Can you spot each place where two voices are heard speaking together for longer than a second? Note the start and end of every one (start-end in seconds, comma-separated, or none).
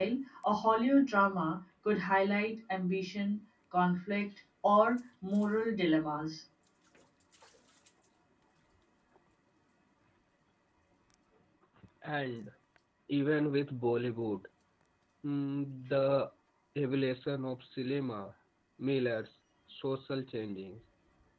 none